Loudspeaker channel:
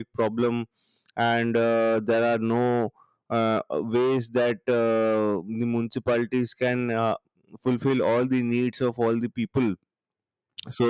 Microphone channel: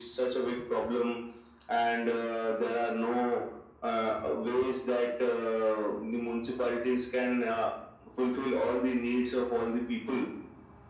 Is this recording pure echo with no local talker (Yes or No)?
Yes